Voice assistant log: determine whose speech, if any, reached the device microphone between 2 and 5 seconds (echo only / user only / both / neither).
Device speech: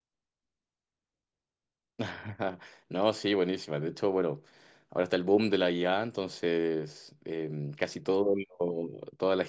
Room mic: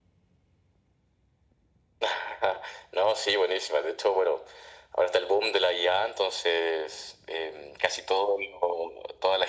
echo only